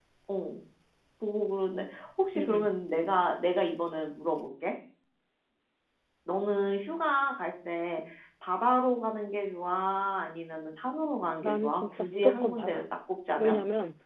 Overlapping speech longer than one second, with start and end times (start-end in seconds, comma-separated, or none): 11.4-12.8